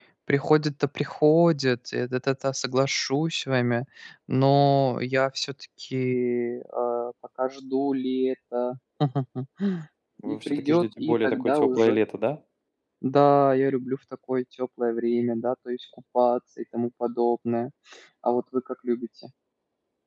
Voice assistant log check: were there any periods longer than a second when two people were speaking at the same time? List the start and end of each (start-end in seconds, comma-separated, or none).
10.3-12.0